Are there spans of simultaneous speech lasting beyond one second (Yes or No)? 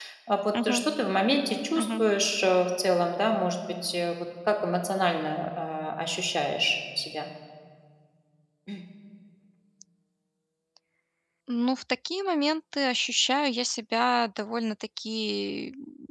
No